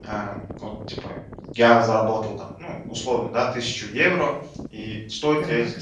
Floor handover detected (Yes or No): No